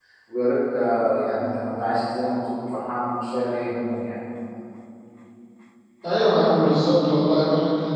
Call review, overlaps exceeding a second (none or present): none